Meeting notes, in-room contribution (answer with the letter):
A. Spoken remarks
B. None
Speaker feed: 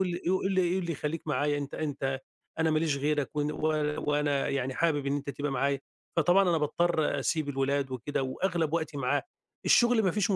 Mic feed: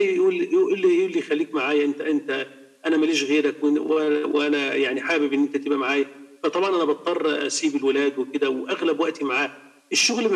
B